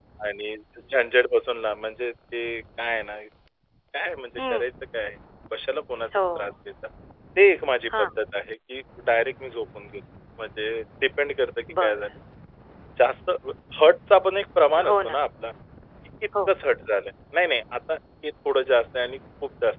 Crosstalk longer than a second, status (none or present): none